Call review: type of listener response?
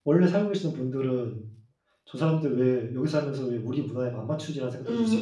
taking over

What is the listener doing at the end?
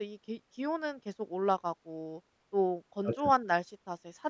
listening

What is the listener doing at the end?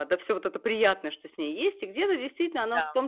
listening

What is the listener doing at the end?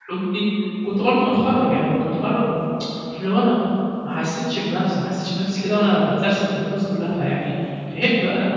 listening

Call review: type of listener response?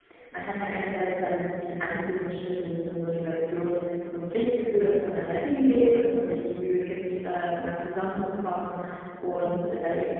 listening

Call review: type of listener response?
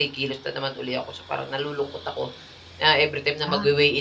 listening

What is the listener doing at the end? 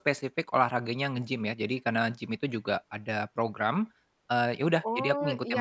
taking over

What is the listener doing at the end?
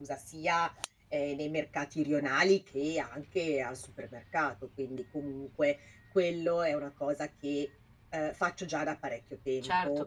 taking over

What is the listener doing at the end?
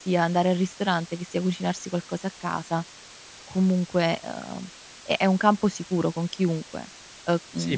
taking over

